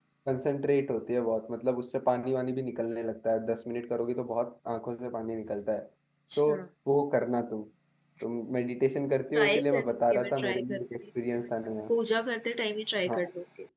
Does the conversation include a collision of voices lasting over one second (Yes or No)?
Yes